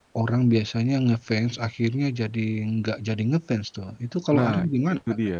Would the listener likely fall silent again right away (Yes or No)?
No